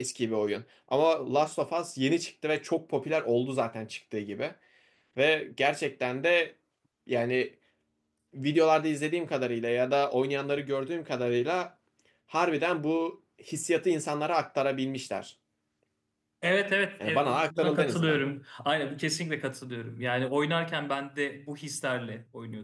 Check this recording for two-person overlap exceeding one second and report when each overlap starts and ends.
17.0-18.2

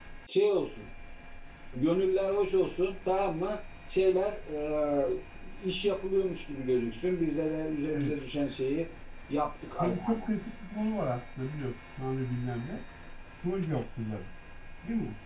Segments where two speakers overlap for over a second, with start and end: none

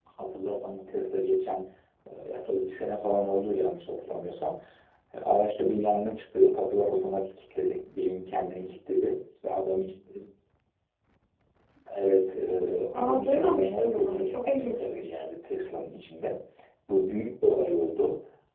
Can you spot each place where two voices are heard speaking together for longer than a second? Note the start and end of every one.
12.9-15.1

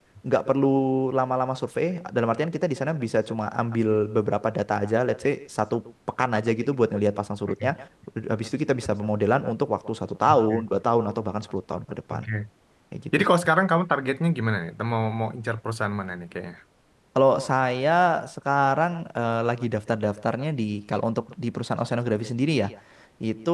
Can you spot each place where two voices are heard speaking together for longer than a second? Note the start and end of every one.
none

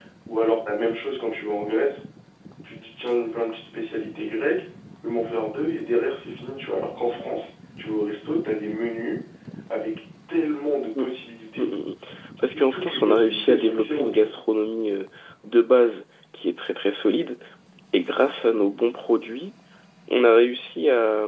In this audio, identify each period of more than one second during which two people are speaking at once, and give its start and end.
12.5-14.3

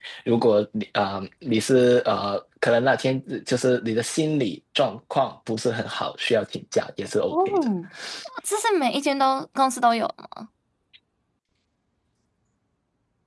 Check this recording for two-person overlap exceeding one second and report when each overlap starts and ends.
none

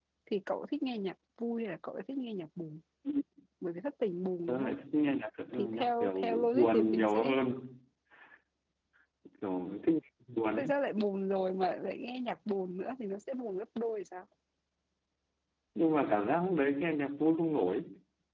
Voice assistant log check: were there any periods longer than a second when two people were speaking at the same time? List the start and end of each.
5.6-7.3

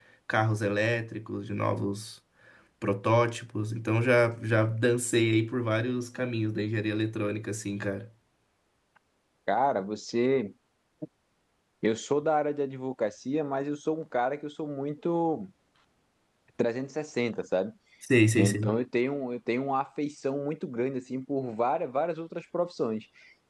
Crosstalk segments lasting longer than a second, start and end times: none

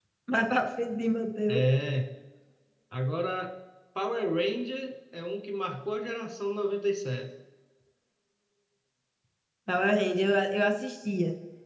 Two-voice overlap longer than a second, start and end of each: none

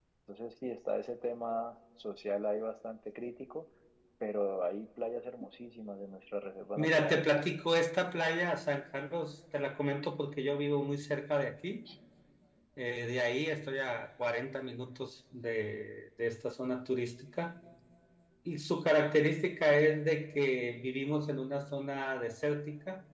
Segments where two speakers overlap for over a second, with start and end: none

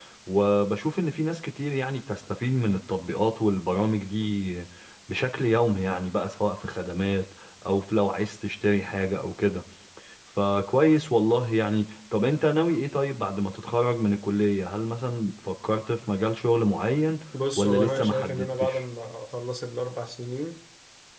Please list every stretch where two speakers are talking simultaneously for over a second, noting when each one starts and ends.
17.6-18.8

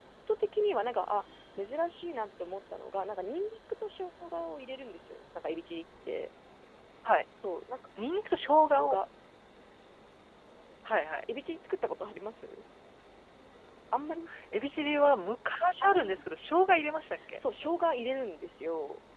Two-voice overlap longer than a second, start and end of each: none

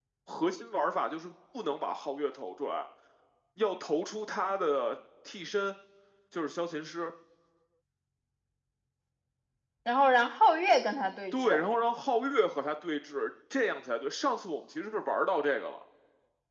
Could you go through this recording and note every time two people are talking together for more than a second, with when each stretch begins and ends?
none

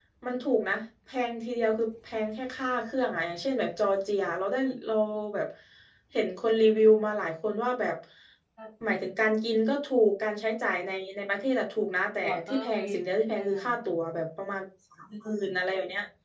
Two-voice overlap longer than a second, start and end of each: 12.2-13.6

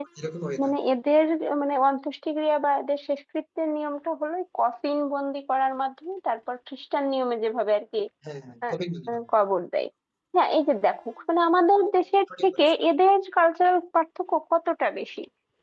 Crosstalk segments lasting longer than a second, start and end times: none

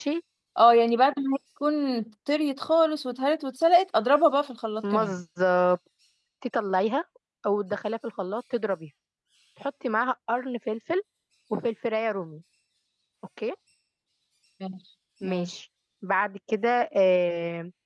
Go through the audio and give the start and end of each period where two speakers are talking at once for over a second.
none

